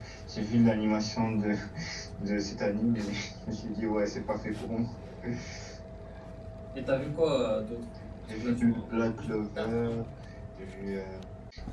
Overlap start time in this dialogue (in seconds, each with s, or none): 8.2 s